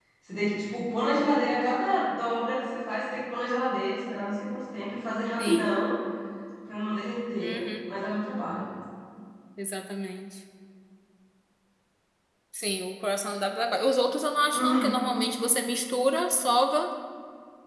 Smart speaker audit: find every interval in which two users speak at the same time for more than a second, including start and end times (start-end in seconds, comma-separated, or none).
none